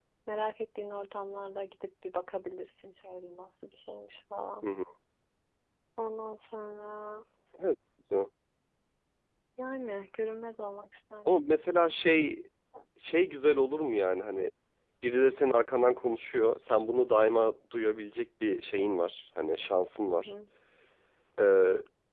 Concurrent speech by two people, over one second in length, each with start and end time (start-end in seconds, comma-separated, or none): none